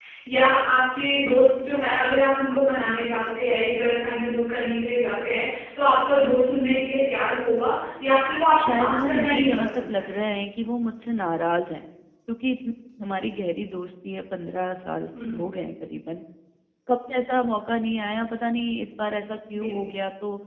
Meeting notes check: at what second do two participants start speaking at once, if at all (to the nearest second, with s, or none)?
9 s